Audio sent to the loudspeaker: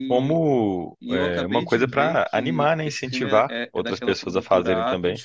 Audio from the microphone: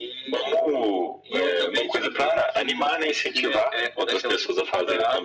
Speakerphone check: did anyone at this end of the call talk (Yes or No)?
No